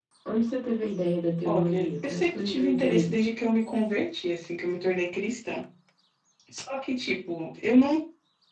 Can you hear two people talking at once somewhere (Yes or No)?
Yes